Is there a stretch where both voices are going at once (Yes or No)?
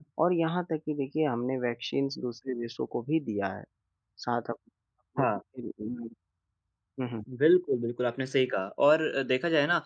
No